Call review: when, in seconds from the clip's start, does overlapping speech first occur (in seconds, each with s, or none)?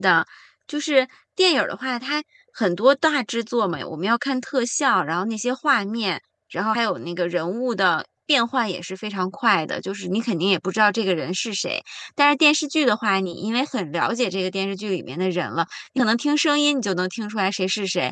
none